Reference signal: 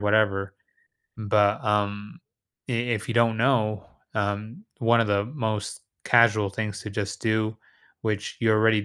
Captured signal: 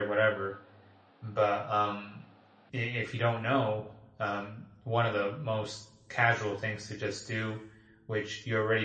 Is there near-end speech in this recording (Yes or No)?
No